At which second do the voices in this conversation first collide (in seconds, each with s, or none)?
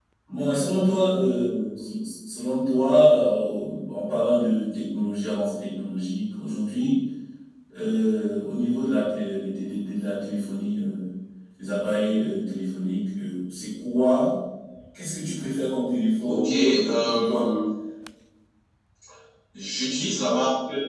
16.2 s